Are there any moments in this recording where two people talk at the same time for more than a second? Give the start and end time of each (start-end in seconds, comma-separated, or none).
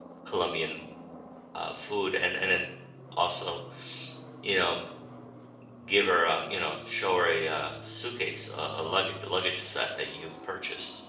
none